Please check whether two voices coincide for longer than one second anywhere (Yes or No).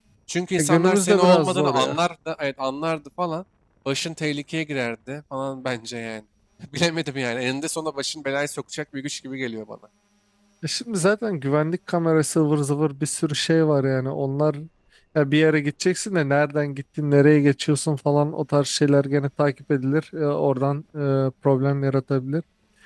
Yes